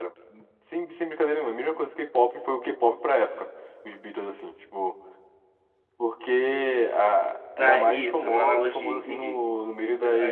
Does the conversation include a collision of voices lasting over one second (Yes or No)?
Yes